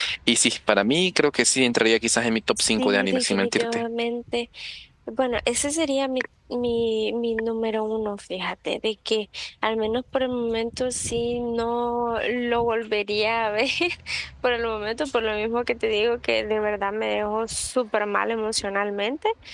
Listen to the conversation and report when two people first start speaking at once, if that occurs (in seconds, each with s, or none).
2.6 s